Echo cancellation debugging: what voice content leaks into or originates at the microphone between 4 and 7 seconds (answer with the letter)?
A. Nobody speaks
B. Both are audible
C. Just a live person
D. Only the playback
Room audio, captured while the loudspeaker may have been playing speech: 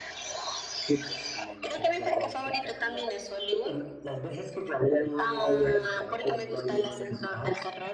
D